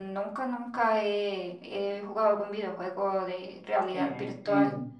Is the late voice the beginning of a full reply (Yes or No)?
Yes